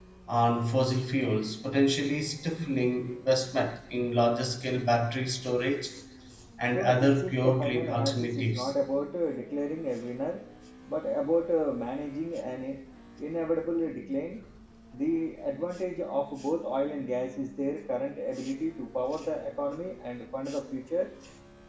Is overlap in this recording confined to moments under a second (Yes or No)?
No